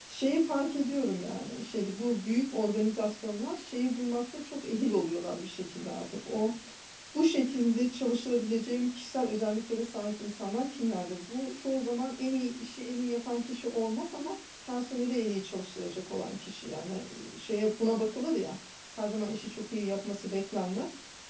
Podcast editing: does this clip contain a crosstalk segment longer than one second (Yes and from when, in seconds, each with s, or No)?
No